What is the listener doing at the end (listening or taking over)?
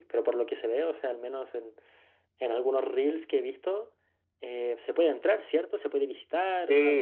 taking over